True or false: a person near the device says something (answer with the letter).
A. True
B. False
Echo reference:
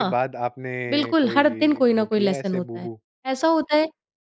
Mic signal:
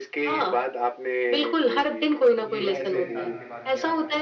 A